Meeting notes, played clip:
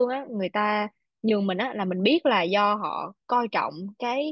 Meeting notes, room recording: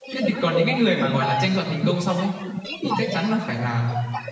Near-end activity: present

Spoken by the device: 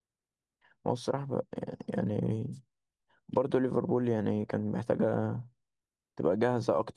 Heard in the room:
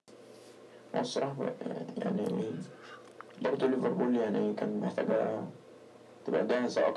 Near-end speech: none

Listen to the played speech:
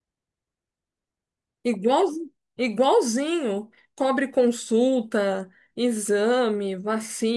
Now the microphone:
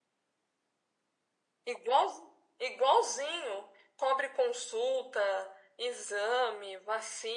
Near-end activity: none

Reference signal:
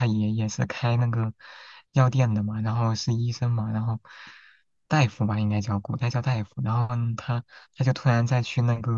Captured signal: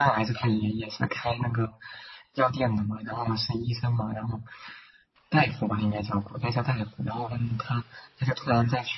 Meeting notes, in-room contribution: none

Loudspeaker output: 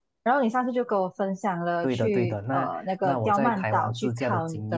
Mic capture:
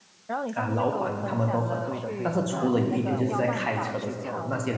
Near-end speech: present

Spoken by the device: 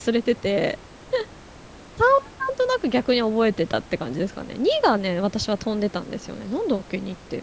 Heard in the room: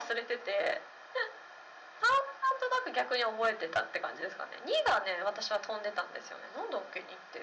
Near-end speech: none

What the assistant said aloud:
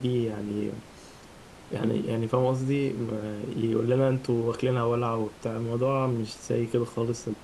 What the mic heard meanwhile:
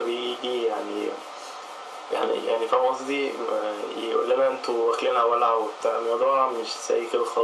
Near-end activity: none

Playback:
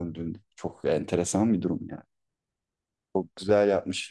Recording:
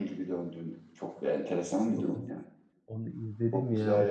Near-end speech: present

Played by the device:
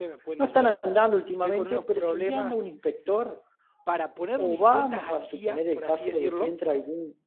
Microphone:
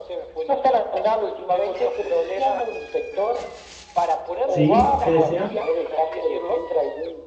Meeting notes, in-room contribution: present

